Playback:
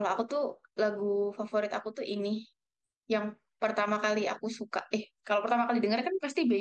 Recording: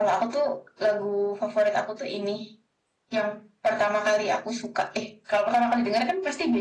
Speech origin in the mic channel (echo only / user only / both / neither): echo only